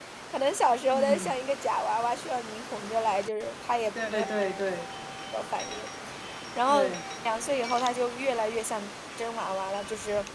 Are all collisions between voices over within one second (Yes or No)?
Yes